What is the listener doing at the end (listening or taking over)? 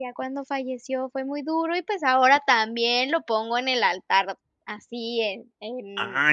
taking over